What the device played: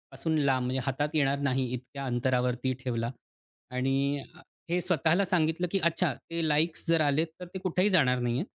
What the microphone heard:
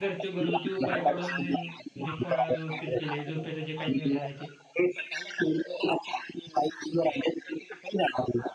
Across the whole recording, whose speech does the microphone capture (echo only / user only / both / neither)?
both